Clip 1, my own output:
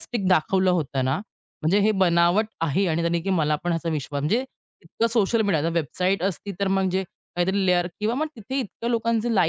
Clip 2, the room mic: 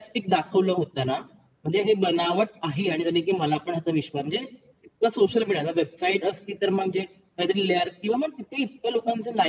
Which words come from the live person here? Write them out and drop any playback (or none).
none